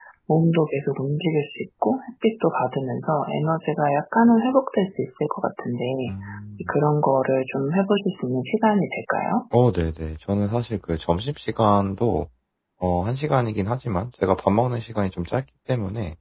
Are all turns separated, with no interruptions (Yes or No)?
Yes